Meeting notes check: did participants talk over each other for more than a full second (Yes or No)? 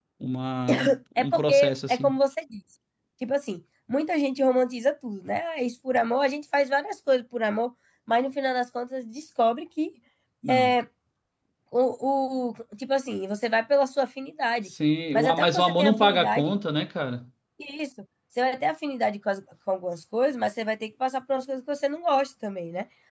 Yes